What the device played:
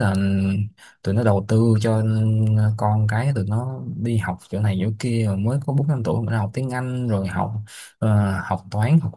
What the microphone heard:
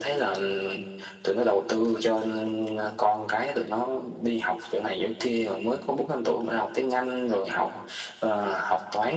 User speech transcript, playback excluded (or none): none